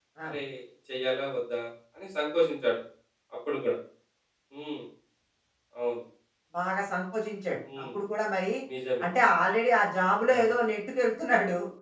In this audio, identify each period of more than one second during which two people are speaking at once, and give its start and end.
none

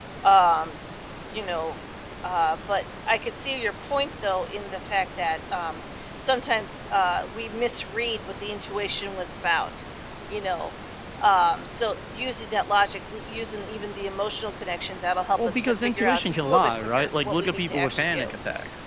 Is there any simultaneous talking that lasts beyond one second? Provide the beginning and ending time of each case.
15.4-18.3

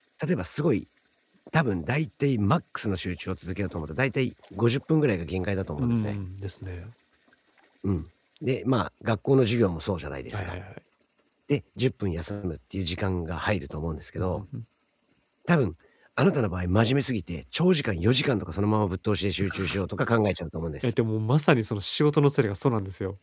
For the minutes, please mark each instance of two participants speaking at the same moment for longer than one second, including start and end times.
none

